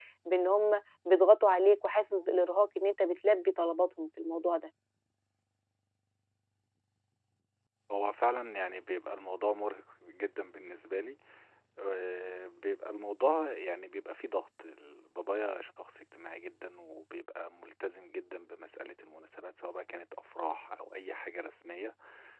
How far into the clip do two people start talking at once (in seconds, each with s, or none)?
none